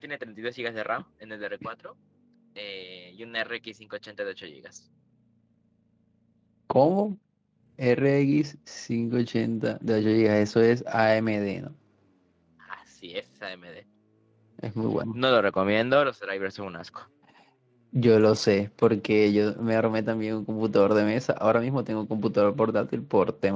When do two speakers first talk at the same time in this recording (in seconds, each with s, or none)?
none